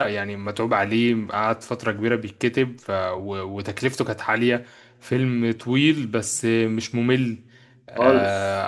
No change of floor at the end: Yes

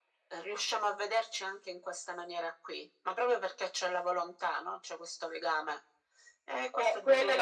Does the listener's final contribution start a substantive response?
Yes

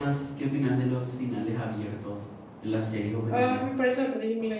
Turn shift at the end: Yes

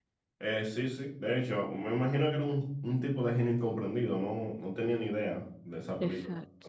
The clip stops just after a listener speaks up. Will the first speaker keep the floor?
No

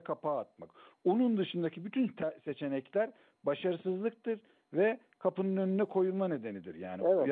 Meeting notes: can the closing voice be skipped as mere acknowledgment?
Yes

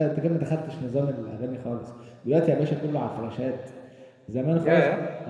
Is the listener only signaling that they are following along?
Yes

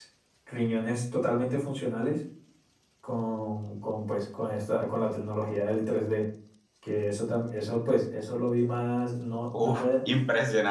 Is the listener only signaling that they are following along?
No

